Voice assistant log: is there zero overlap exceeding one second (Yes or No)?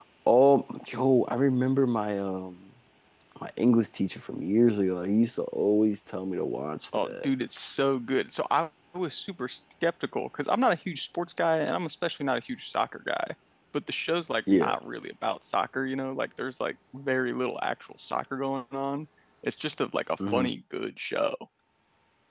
Yes